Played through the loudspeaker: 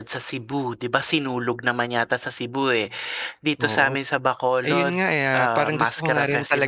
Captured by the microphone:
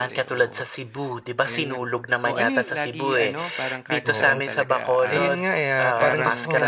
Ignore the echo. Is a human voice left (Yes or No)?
Yes